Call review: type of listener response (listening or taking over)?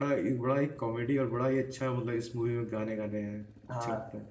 taking over